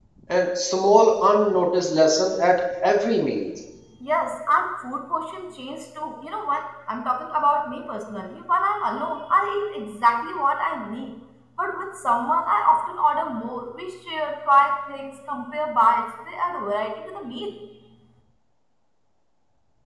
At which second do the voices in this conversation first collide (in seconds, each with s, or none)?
none